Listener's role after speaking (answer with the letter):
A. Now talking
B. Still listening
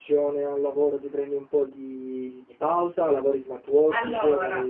A